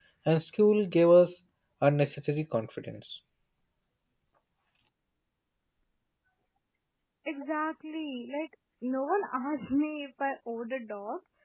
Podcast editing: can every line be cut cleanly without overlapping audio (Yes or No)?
Yes